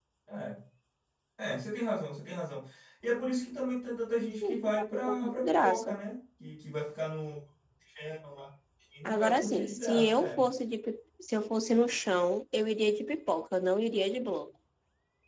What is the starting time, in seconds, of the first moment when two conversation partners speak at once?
4.4 s

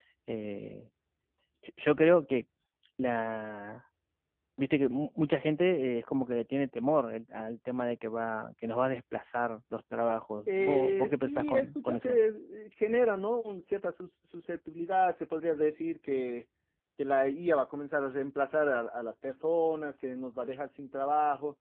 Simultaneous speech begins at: 10.5 s

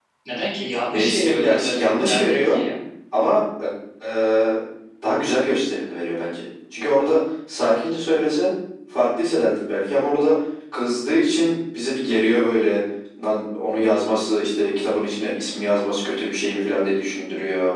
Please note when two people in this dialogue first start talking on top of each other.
0.9 s

